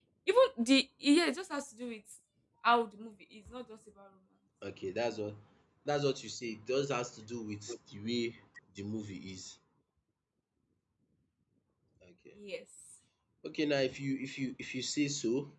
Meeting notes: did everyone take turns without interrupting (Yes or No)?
Yes